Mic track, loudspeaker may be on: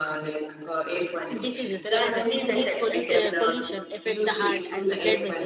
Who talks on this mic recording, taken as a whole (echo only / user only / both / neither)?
both